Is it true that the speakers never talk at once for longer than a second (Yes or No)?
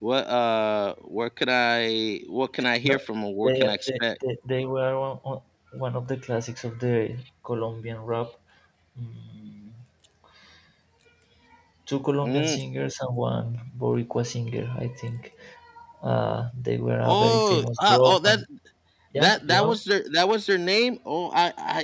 No